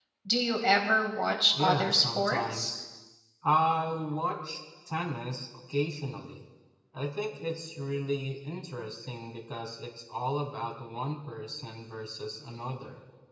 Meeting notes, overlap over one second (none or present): present